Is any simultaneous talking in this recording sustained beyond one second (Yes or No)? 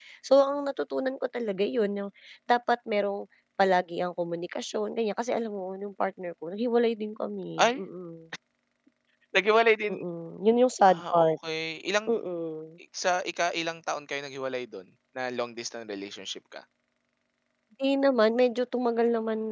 No